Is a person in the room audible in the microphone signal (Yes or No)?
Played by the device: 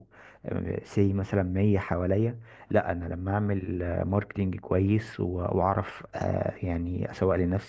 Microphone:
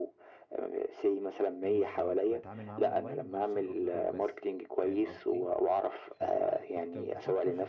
Yes